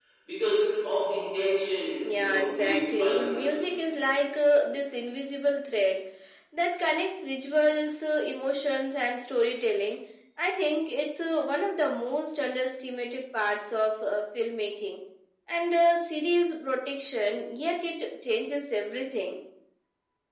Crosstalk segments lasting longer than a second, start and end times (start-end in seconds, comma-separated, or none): 2.0-3.7